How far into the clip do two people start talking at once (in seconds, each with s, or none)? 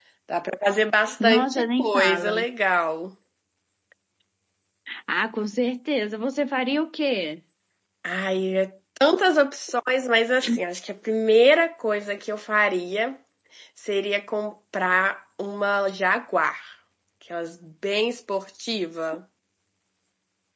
1.2 s